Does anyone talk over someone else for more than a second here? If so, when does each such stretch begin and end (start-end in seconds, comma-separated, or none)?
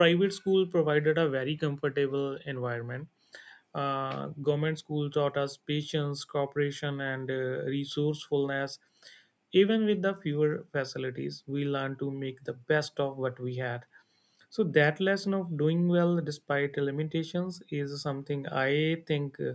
none